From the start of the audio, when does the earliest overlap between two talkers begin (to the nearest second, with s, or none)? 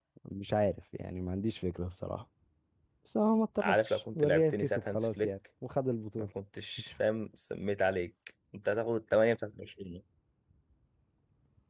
4 s